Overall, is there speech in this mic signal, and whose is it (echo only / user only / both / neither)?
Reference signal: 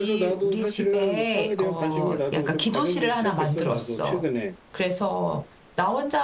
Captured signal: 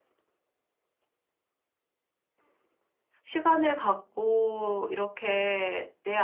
user only